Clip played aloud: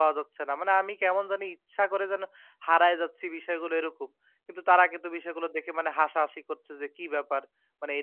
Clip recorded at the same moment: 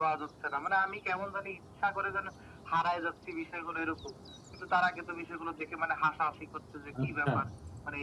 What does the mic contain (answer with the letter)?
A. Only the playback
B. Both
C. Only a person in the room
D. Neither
B